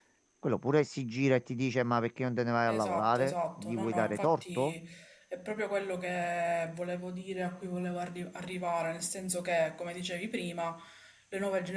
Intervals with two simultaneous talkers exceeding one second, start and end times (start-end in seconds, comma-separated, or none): 2.7-4.7